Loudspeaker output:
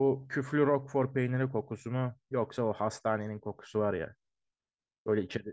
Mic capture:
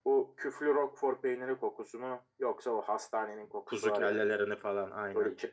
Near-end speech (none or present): present